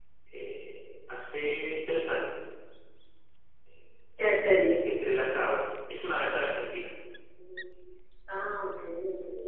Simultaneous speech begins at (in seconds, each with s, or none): none